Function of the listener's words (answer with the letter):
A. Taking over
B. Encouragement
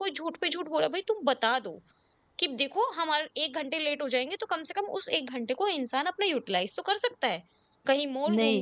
B